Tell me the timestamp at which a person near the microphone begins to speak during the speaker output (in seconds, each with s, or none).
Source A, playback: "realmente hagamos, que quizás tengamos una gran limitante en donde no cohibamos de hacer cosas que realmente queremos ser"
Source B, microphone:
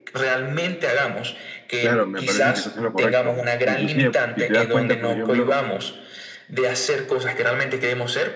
1.8 s